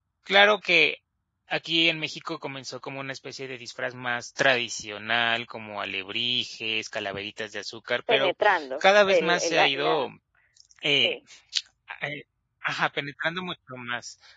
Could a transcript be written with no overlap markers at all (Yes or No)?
No